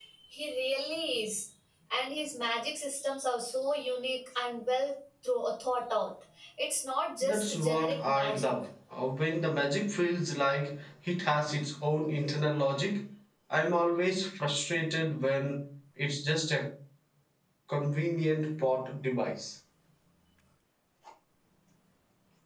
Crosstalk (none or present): present